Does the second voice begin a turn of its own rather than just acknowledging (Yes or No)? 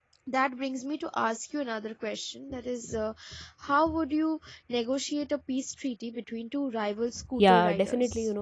Yes